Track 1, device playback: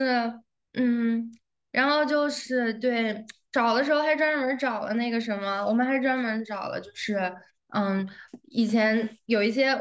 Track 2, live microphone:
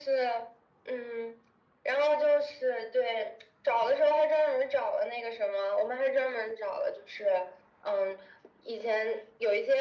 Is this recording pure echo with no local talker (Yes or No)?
Yes